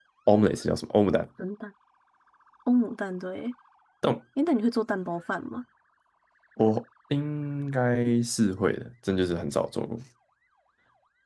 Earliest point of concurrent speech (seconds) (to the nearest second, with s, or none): none